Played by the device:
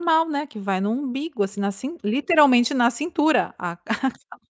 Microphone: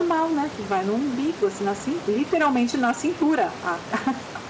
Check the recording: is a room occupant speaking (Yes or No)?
No